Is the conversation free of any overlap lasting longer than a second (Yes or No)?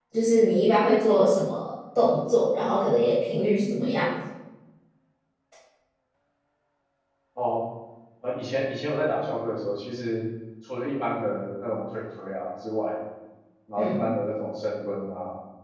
Yes